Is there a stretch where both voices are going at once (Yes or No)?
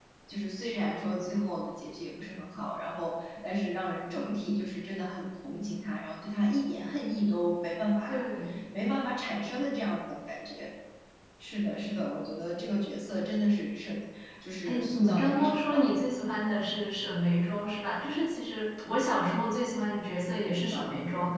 Yes